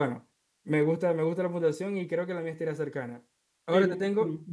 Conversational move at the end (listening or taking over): taking over